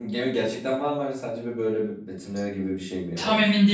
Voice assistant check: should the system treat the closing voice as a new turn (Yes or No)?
Yes